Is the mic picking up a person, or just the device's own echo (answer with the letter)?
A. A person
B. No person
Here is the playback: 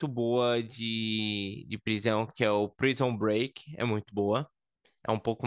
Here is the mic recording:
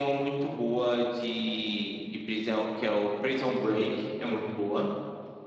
B